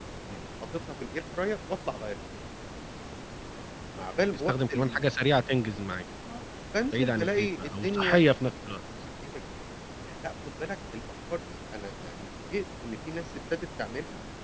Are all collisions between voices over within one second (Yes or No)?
No